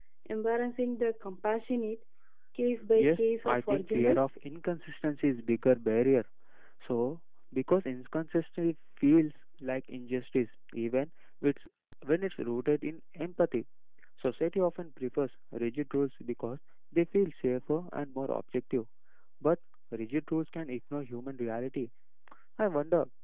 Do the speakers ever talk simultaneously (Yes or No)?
Yes